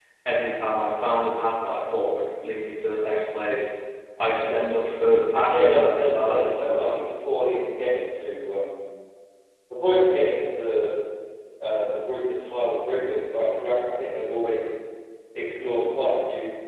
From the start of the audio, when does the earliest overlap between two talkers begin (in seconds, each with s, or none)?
5.5 s